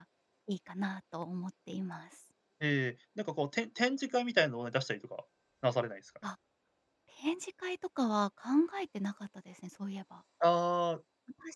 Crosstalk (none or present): none